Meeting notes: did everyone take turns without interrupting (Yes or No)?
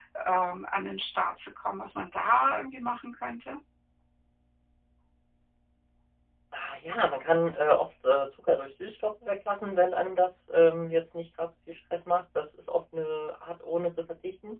Yes